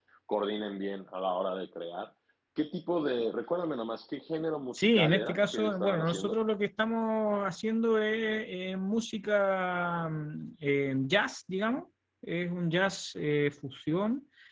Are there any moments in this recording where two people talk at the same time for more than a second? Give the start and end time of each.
4.7-6.4

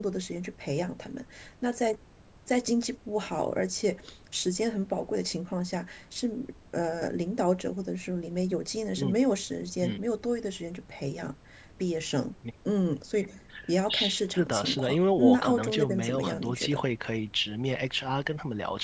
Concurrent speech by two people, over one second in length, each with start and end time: 13.9-16.8

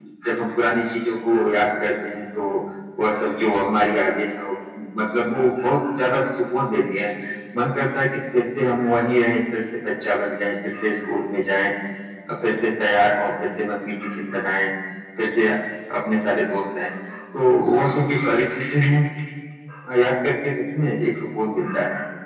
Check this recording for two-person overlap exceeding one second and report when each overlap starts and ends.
none

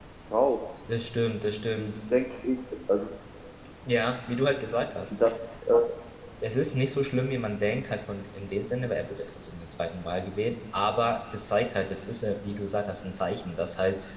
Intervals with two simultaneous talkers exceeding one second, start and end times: none

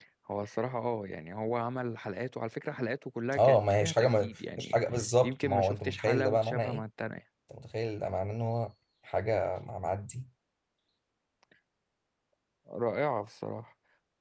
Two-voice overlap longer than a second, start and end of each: 3.4-4.8, 5.2-6.8

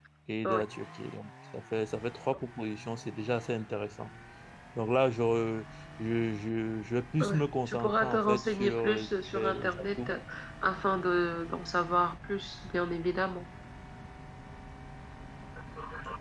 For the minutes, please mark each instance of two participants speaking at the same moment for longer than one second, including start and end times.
7.2-10.2

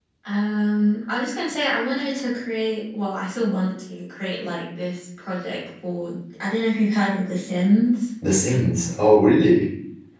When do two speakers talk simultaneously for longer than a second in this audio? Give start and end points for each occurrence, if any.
none

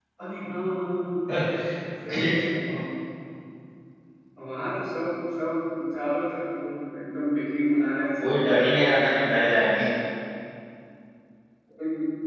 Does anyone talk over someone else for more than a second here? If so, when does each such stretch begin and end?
8.2-9.4

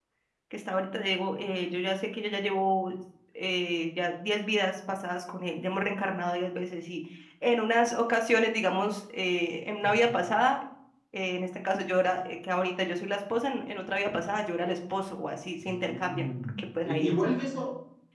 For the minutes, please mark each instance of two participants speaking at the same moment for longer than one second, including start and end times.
15.6-17.2

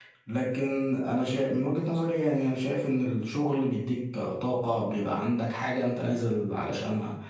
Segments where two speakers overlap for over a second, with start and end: none

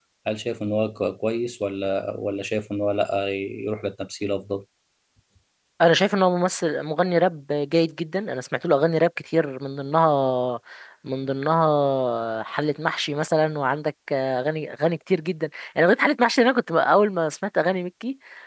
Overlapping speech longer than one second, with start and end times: none

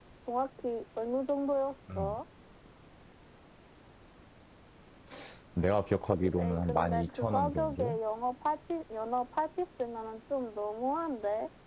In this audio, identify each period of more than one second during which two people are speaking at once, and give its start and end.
6.4-8.0

